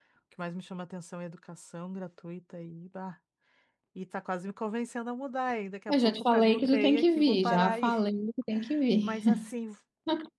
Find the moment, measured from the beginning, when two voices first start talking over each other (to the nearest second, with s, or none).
6 s